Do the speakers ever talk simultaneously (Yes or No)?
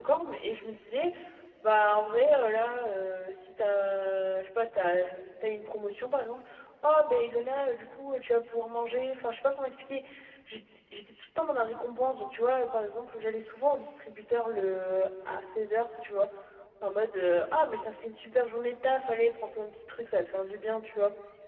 No